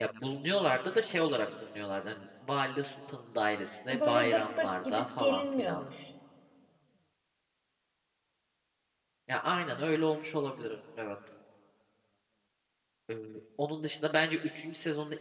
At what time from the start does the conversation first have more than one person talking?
3.9 s

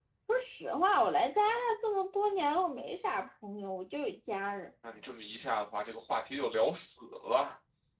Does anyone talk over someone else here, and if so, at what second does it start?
none

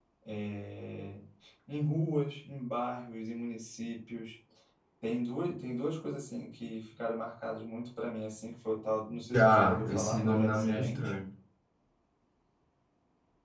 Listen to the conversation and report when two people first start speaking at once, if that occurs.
9.3 s

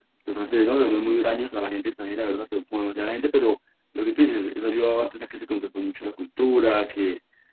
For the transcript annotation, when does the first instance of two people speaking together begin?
none

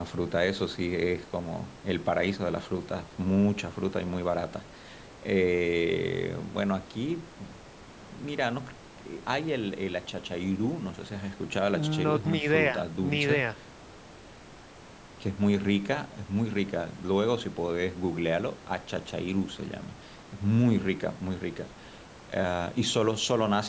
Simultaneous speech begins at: 11.7 s

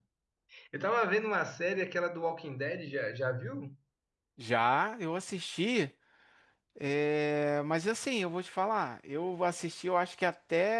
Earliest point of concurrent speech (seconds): none

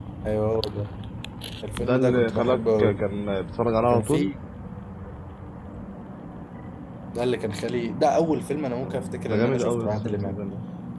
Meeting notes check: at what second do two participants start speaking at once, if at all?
1.8 s

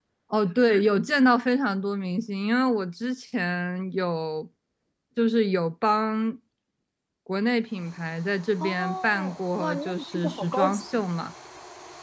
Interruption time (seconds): 8.6 s

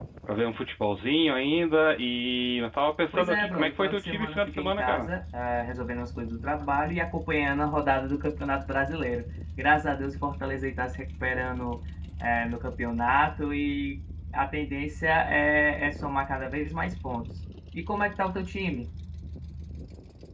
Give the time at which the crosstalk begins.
3.1 s

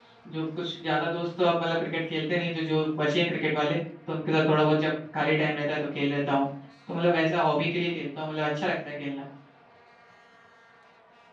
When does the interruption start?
none

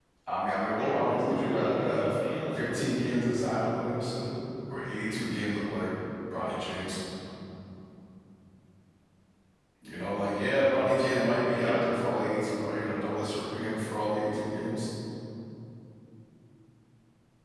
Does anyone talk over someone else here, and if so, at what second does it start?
0.8 s

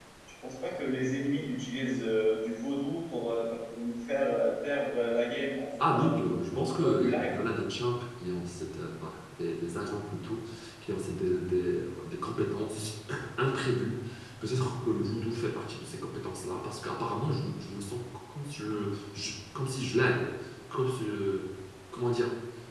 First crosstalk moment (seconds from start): 5.8 s

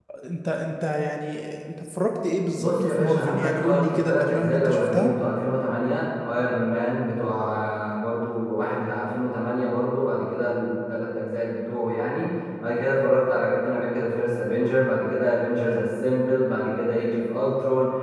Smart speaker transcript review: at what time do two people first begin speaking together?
2.5 s

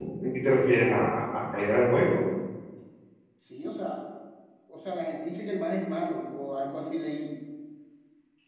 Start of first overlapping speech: none

